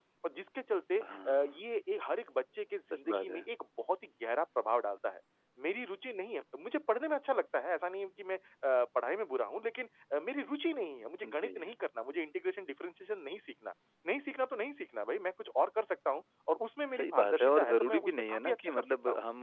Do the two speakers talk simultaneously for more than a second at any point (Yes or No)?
Yes